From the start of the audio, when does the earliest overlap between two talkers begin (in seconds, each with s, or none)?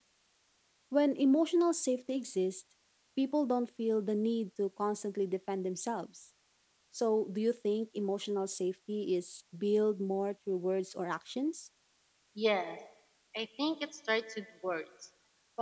none